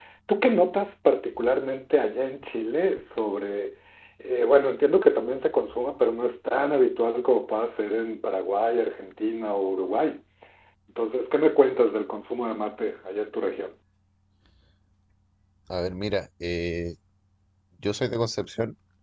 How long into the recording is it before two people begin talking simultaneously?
none

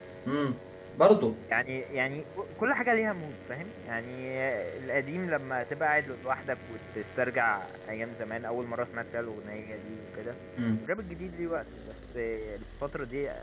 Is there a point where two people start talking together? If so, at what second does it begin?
none

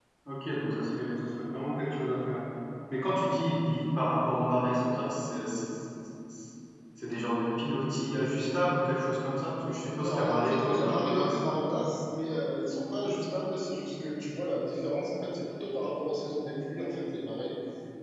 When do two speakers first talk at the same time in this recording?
9.9 s

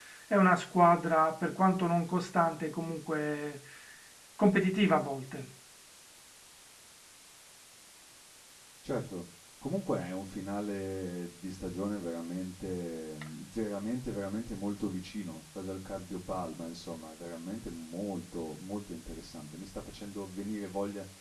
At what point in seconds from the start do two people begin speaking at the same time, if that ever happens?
none

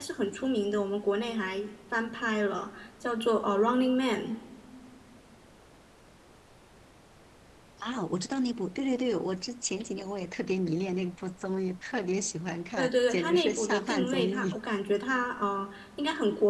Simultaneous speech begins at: 12.8 s

